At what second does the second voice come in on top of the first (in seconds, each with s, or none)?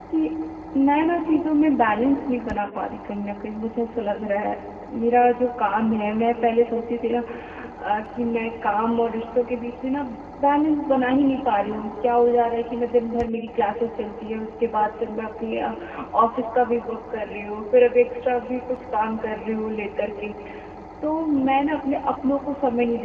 none